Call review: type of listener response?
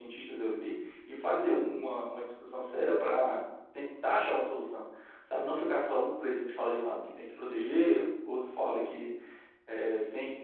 listening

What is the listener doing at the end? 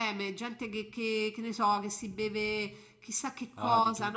taking over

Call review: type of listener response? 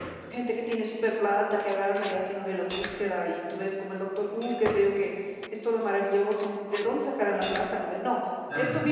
listening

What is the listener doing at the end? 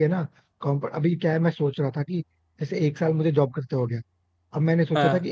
listening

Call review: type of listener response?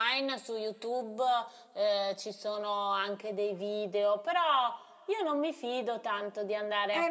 taking over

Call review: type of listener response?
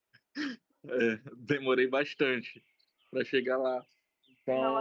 taking over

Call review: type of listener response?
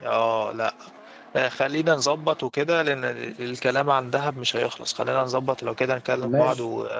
listening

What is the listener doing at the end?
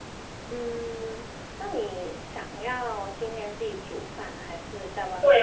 taking over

